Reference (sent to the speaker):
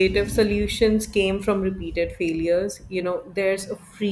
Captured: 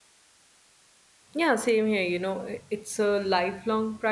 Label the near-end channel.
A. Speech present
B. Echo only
A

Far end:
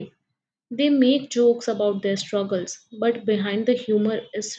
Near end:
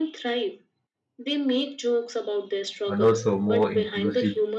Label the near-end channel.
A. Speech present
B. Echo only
A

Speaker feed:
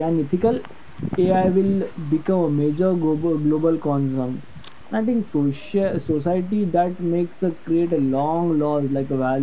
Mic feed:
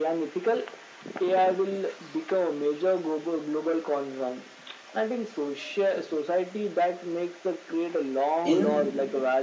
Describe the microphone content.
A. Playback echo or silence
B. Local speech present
B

